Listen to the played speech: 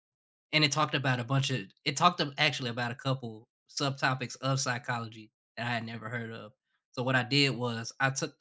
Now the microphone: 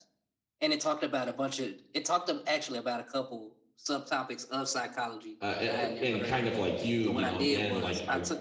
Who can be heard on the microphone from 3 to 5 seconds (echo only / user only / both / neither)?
echo only